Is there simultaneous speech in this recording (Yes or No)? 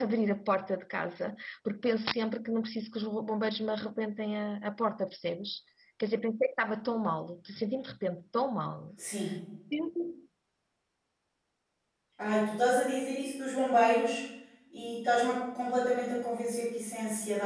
No